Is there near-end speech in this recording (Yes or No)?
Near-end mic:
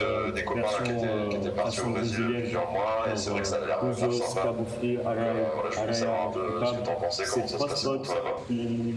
Yes